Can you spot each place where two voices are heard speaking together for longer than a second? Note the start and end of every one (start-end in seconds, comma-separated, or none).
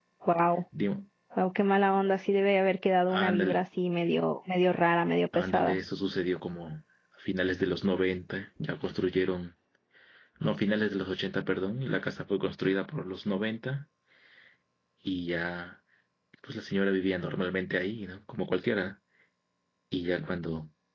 none